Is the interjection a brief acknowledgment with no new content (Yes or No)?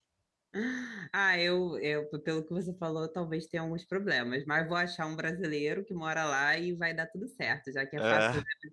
Yes